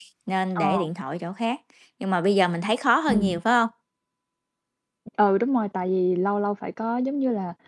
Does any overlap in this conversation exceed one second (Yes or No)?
No